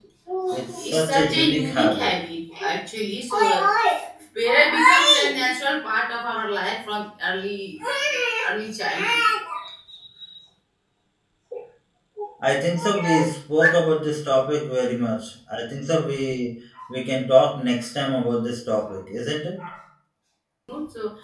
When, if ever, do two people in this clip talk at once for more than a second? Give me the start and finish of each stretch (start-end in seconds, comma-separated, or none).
0.5-2.1